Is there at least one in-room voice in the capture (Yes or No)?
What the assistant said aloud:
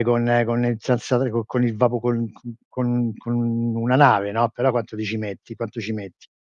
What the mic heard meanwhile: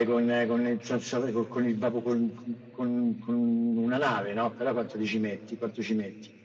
No